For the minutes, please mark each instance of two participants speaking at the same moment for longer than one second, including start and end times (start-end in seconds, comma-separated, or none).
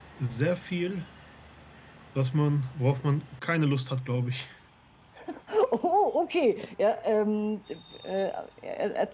none